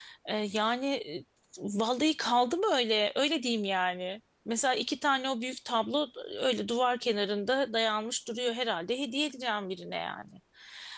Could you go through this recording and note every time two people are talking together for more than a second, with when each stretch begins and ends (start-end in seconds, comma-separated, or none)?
none